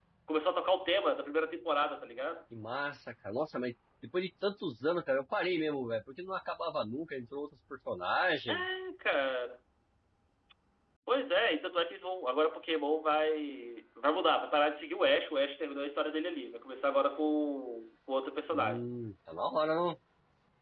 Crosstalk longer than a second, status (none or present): none